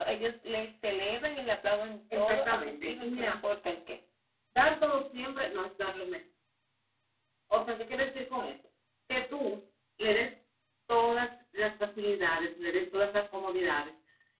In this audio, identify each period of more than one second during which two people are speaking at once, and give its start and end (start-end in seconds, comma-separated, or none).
2.1-3.4